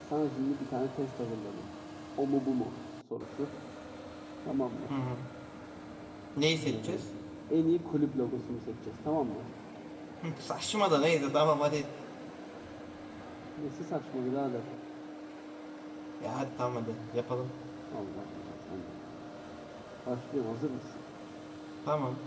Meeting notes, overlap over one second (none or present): none